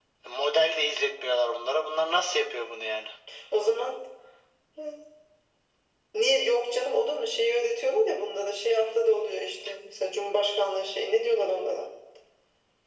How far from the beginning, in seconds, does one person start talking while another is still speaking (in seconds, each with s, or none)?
none